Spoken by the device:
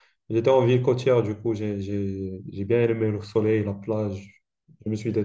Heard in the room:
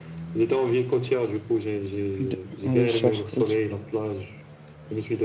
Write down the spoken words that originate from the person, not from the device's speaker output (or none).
D- ouais, ça, ok.